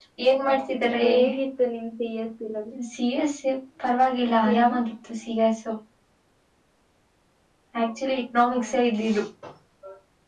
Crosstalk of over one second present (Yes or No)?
No